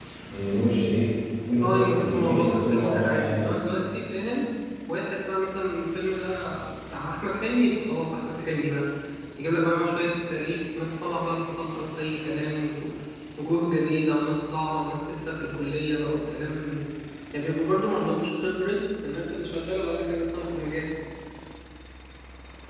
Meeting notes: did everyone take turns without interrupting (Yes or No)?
No